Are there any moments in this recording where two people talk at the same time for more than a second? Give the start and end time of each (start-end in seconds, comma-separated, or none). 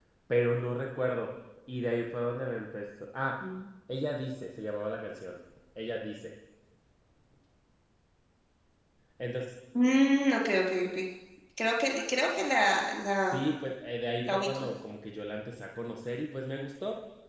none